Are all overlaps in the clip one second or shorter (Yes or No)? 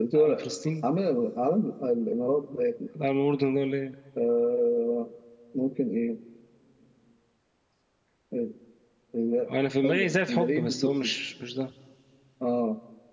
No